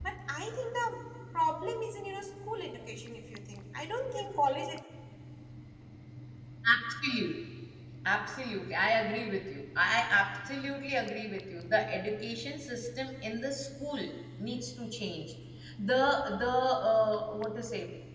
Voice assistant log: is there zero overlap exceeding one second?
Yes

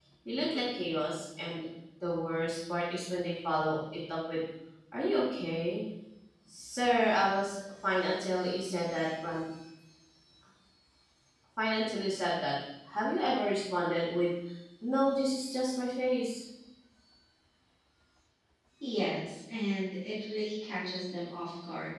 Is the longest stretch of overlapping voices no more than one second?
Yes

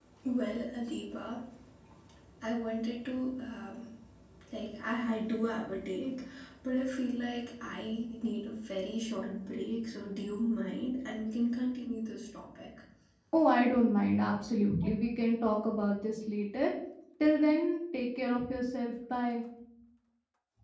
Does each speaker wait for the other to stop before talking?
Yes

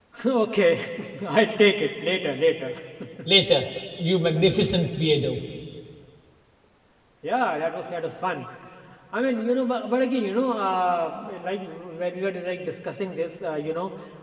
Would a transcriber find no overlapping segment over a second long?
Yes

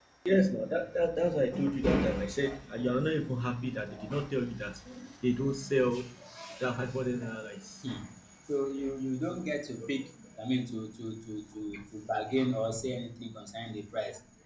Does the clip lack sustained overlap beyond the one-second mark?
Yes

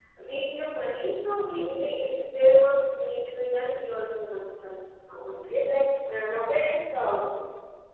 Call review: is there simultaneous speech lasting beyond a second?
No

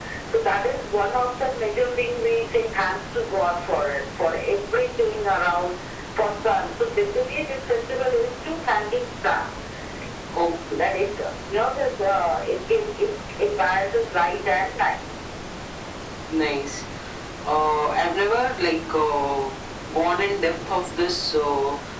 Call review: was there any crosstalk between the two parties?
No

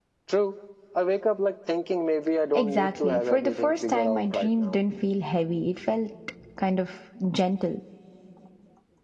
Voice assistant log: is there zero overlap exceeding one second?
No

